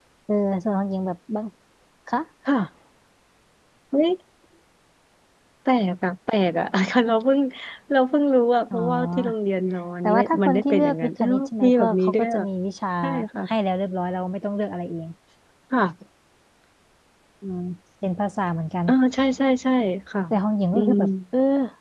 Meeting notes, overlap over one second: present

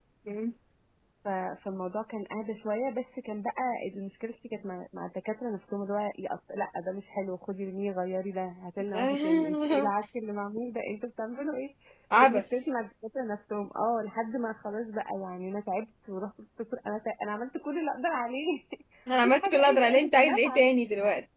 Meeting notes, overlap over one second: present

